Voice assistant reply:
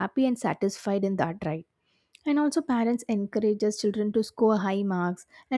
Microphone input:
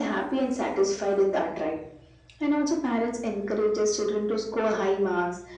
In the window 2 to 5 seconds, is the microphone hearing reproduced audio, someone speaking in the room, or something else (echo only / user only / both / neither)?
echo only